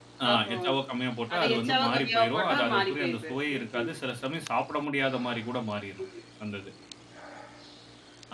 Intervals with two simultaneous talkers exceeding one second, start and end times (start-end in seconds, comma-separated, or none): 1.3-3.9